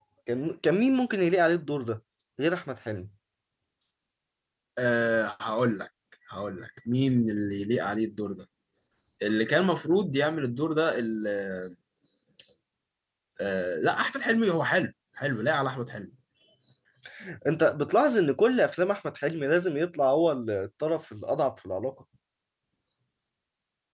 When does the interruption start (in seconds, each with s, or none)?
none